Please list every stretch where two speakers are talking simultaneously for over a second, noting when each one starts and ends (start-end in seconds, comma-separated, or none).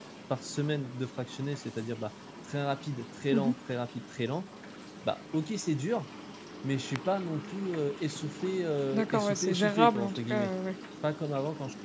8.9-10.5